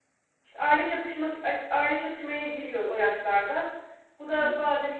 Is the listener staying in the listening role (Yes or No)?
Yes